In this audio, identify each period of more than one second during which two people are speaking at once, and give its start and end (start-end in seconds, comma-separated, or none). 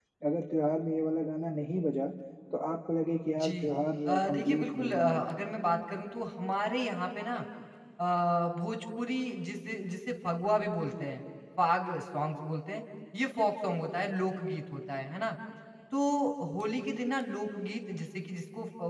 4.0-5.3